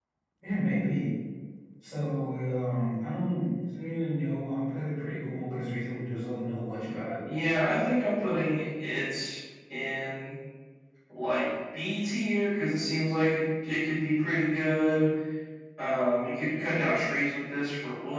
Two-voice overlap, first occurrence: none

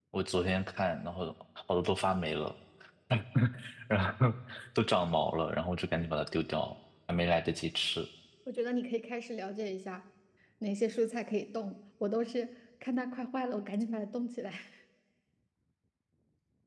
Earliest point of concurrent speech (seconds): none

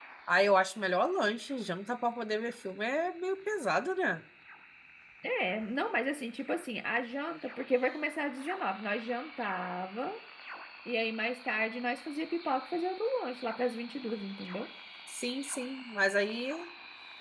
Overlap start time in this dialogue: none

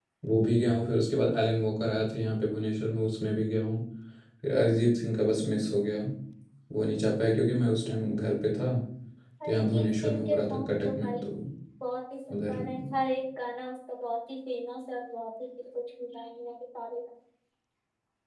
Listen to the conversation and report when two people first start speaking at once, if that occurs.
9.4 s

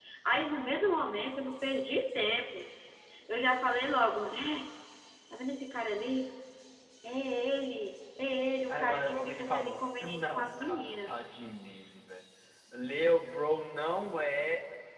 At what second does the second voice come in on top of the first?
8.7 s

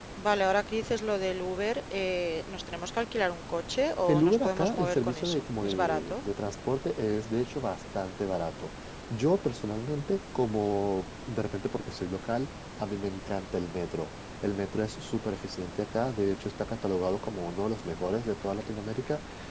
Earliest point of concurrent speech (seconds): 4.1 s

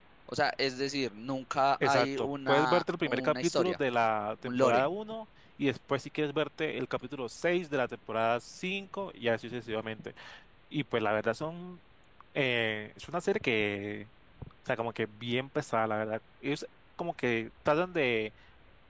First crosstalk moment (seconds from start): 1.8 s

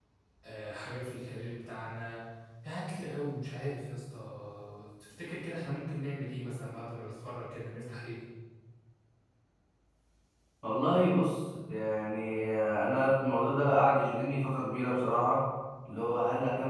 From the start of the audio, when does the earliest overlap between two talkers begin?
none

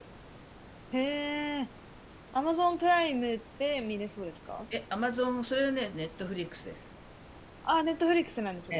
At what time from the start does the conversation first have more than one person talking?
none

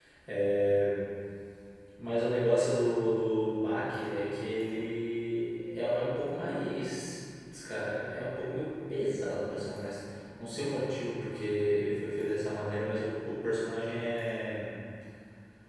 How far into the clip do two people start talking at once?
none

